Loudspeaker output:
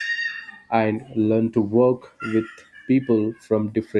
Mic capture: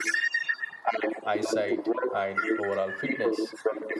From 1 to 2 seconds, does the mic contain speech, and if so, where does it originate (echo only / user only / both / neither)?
both